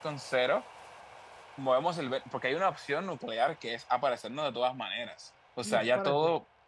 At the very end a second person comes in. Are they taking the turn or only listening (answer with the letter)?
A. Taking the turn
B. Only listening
A